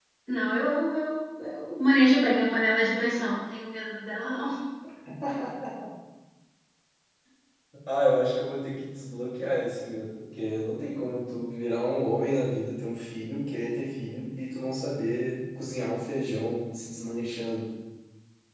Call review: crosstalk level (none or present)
none